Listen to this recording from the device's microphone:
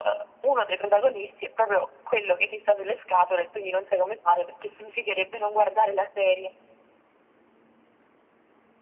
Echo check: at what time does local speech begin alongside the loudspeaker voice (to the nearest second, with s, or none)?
none